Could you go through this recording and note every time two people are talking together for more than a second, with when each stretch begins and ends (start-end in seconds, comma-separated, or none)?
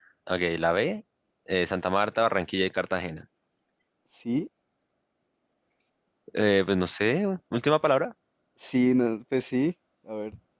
none